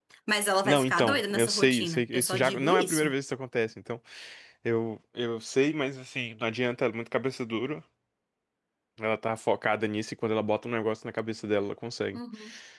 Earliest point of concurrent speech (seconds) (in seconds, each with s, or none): 0.6 s